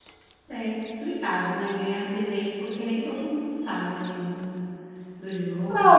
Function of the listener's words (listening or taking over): taking over